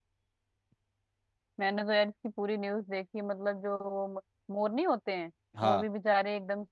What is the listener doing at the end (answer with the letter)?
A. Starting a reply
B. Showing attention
B